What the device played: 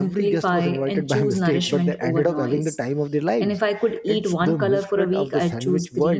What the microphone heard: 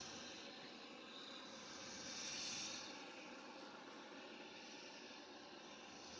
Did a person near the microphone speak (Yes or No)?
No